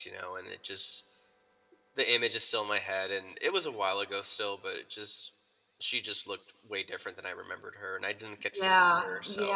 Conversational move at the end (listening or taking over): taking over